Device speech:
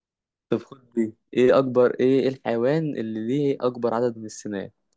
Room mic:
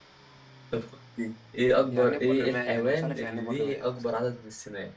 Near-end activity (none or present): present